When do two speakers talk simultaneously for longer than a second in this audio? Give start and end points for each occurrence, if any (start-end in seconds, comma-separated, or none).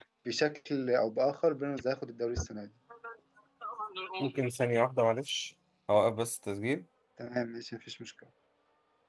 none